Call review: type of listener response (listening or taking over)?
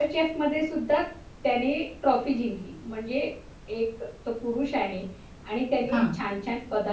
listening